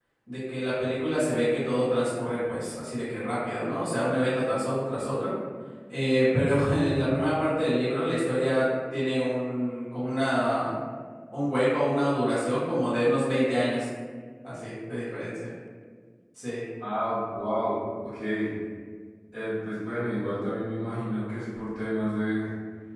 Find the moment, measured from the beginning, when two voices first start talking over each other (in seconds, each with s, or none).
none